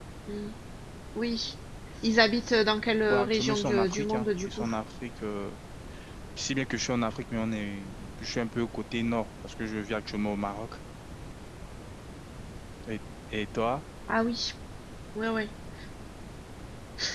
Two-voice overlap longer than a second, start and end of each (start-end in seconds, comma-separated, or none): 3.1-4.7